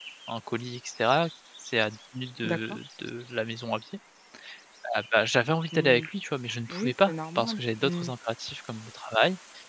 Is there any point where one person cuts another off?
Yes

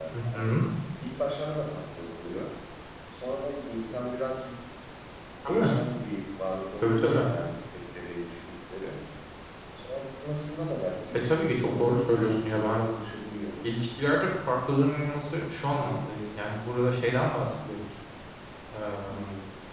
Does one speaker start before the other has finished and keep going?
Yes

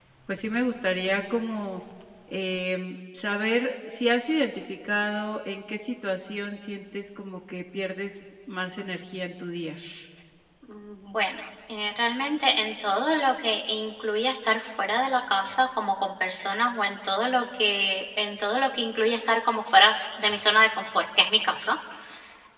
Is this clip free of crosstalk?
Yes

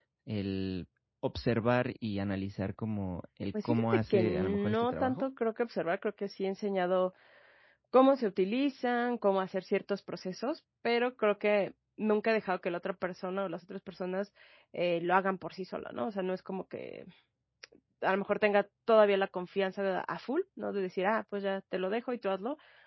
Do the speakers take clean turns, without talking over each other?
No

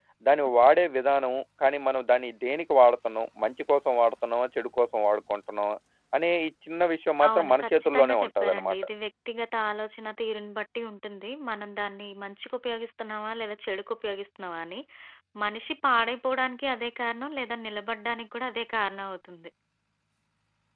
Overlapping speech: Yes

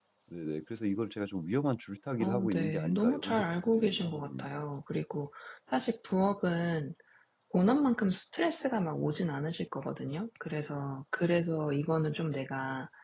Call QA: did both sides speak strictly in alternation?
No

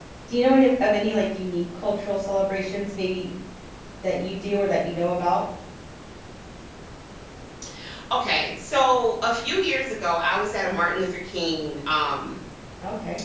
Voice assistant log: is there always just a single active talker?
Yes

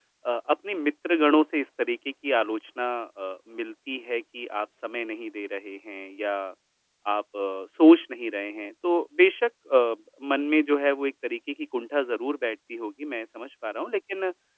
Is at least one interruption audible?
No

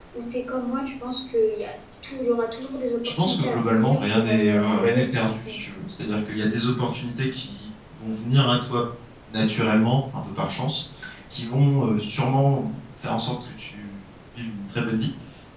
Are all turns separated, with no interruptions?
No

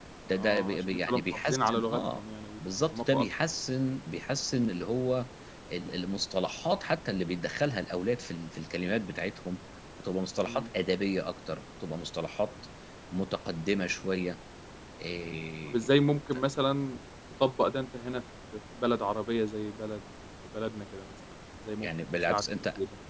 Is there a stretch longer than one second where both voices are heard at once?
Yes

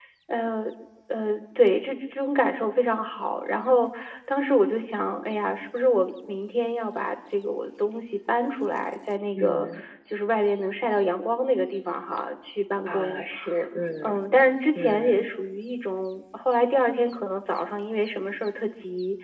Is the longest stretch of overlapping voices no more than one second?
Yes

